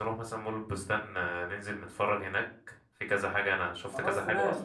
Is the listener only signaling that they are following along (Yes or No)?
Yes